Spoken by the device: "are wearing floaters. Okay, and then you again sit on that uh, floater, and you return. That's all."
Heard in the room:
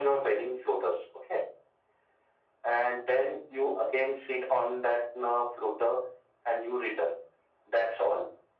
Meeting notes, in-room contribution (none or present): none